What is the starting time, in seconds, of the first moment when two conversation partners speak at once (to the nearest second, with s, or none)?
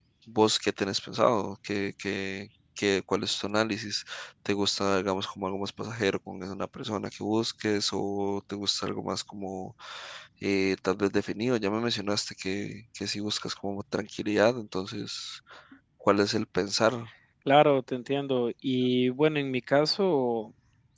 none